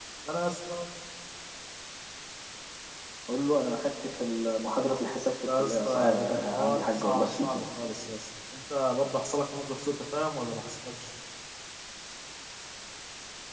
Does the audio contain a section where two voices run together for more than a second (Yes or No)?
Yes